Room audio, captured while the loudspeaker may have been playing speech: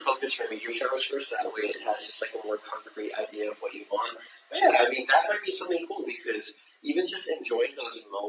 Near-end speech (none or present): none